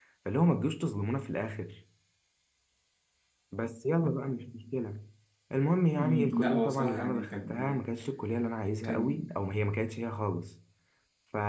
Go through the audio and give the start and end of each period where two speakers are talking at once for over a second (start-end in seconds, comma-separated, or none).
6.0-7.8